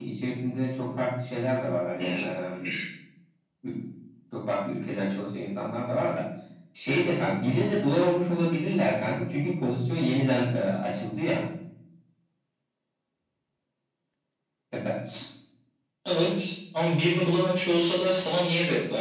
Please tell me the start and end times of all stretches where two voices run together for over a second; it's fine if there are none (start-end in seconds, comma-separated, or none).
none